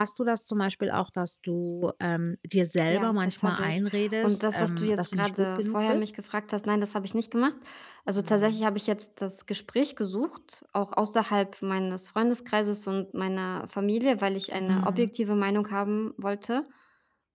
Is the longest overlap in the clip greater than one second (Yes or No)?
Yes